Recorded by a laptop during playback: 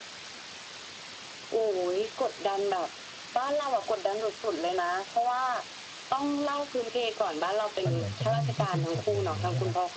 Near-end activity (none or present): present